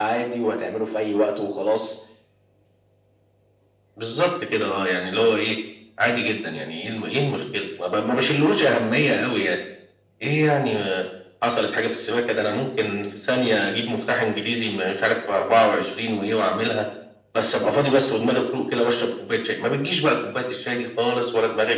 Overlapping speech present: No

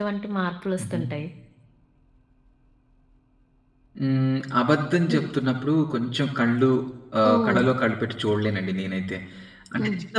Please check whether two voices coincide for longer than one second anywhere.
No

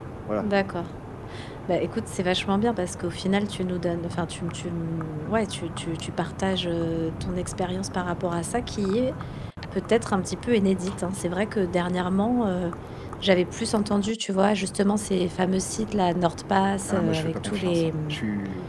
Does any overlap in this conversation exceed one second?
Yes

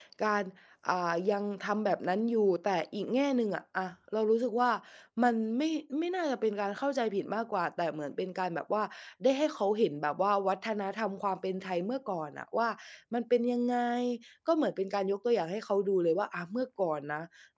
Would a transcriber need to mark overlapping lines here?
No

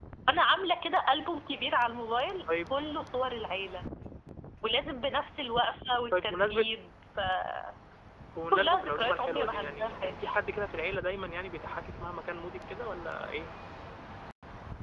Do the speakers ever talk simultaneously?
Yes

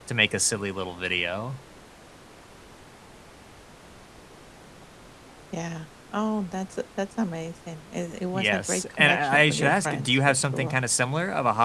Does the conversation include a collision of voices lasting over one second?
Yes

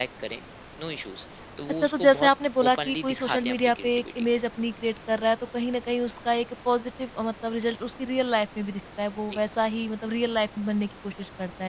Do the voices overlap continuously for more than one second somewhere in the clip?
Yes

